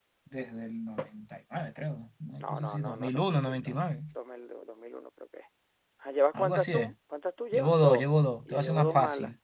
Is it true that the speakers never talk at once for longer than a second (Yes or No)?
No